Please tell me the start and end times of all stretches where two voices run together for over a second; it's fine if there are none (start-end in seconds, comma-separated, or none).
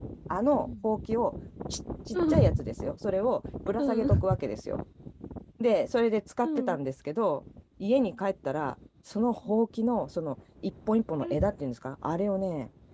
none